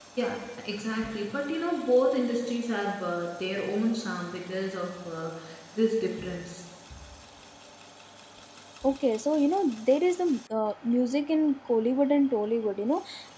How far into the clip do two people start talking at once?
none

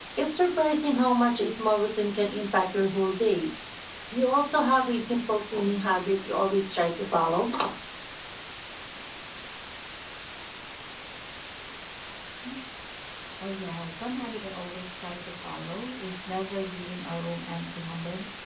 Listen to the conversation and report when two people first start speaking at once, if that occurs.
none

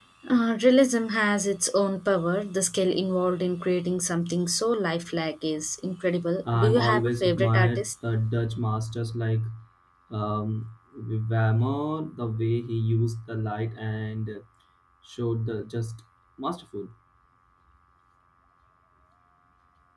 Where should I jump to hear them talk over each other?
6.5 s

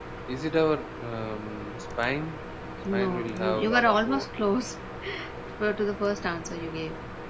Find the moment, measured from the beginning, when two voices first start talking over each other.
2.9 s

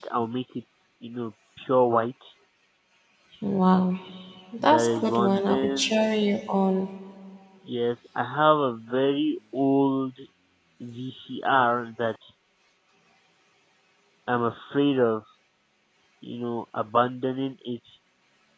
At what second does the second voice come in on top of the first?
4.7 s

